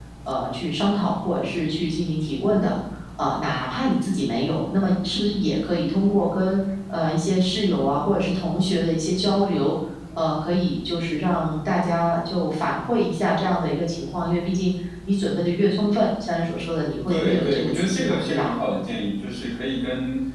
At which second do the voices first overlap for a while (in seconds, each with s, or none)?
17.1 s